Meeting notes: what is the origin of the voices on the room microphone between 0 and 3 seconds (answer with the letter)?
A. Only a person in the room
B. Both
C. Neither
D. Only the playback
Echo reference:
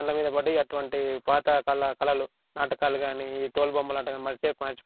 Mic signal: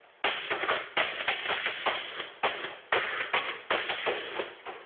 C